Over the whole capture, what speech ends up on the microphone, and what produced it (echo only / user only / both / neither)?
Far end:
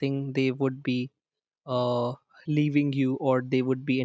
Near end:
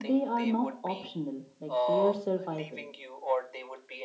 both